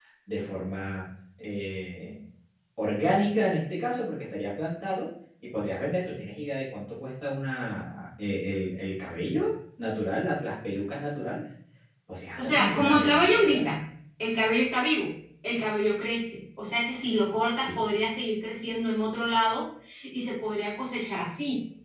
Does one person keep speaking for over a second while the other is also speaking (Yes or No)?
Yes